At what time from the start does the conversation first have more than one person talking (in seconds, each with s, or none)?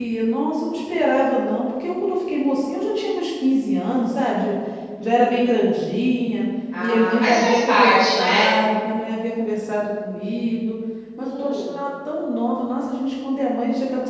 6.8 s